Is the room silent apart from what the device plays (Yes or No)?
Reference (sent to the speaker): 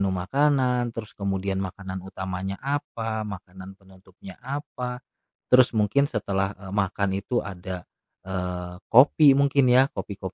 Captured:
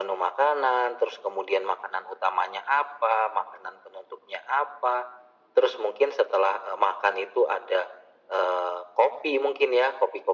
Yes